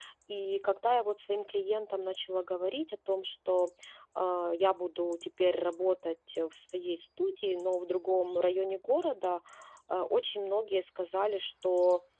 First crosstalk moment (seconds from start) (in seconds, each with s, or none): none